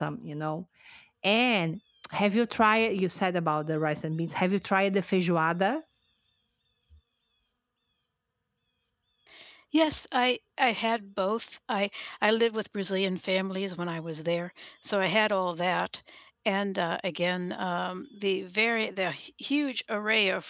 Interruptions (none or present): none